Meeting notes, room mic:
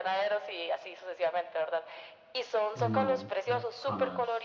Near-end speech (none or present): present